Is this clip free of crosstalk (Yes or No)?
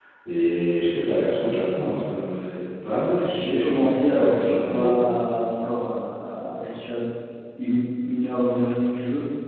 No